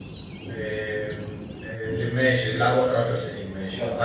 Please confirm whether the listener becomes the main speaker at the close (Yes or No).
Yes